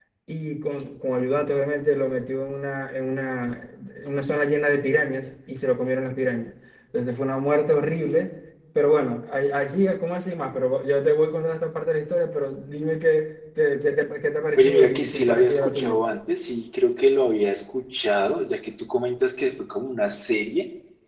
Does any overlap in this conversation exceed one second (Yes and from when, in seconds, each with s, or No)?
Yes, from 14.6 s